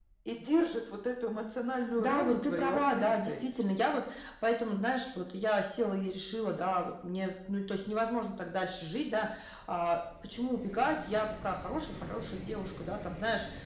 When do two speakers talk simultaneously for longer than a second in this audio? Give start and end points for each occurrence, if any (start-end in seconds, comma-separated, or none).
2.0-3.4